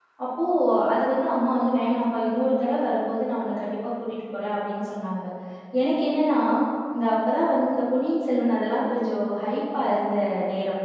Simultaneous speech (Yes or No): No